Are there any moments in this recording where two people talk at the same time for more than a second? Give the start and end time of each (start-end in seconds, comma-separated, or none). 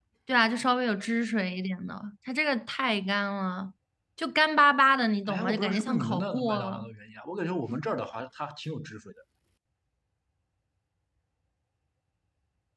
5.3-6.9